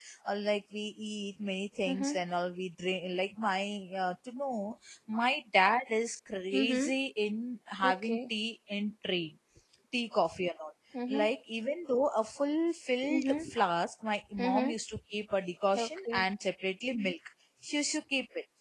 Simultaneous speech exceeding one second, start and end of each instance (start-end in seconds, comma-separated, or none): none